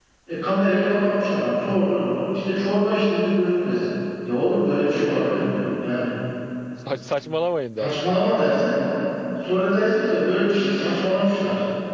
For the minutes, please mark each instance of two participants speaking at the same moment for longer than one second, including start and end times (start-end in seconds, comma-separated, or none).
none